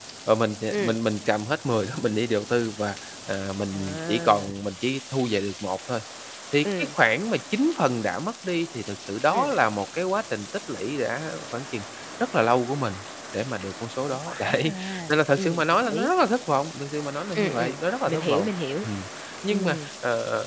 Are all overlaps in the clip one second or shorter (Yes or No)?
No